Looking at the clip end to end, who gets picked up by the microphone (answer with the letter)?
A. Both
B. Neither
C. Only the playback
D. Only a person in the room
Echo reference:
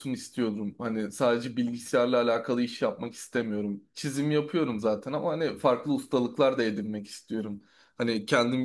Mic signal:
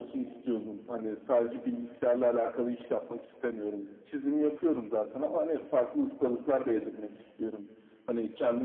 C